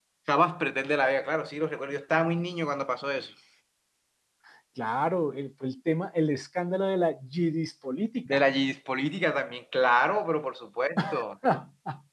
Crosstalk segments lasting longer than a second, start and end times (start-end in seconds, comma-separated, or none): none